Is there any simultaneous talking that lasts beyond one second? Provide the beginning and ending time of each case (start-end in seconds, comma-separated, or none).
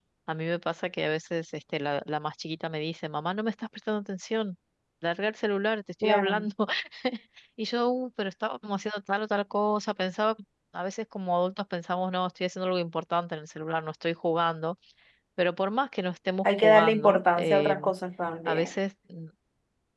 16.4-17.9